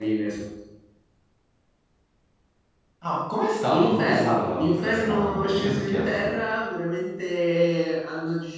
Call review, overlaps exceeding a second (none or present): present